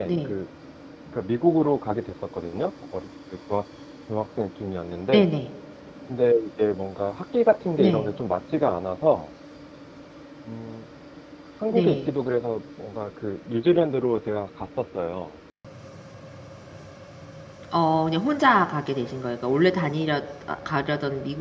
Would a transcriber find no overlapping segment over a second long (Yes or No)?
Yes